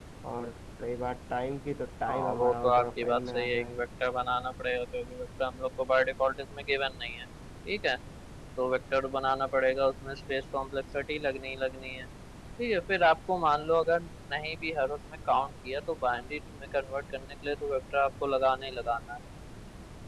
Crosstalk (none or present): present